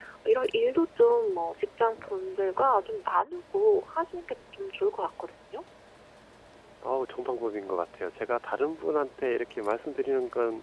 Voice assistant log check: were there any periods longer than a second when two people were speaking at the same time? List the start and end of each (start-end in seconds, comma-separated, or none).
none